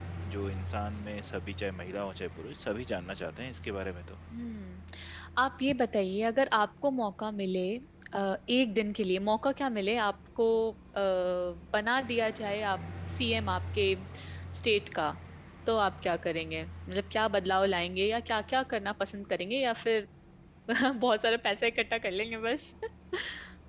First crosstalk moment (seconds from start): none

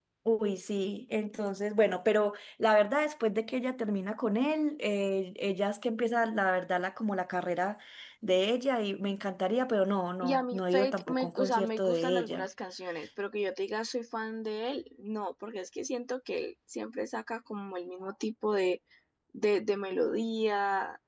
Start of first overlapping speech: 10.2 s

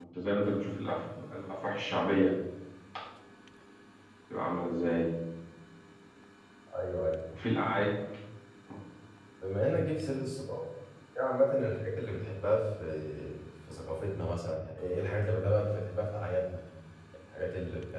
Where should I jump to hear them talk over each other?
none

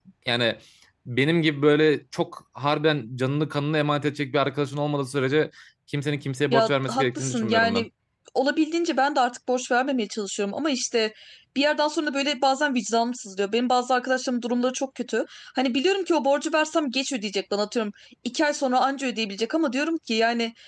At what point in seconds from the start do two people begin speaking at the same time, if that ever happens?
6.5 s

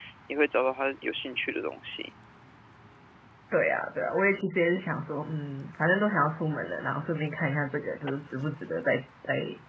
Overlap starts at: none

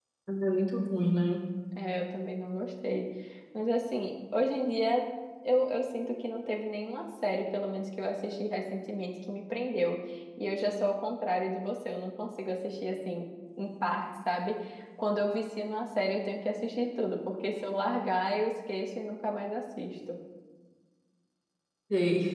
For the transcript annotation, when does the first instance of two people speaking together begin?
none

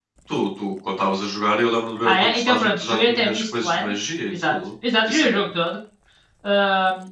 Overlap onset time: 2.0 s

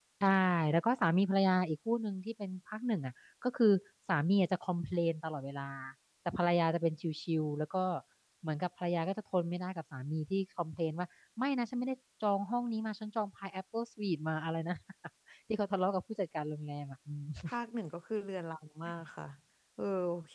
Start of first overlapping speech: none

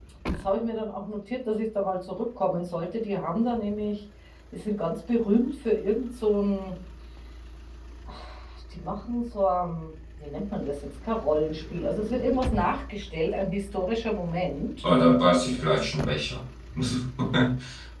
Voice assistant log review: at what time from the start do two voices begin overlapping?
none

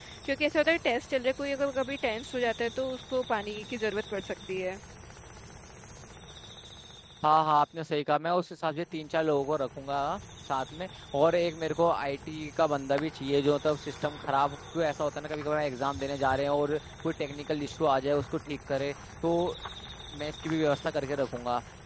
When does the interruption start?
none

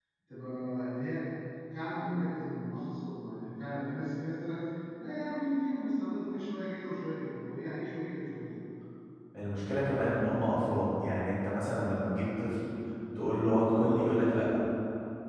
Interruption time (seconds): none

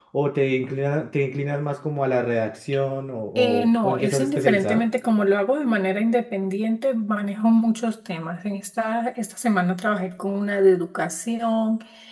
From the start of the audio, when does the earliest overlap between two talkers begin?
3.4 s

